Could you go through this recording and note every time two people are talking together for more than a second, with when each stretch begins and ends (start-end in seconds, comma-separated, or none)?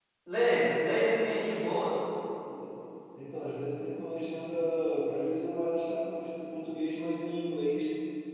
none